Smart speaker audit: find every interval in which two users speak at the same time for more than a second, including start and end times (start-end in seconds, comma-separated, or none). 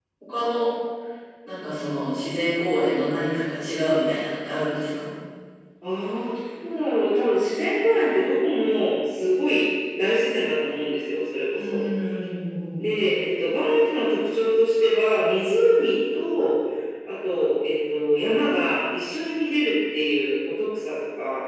none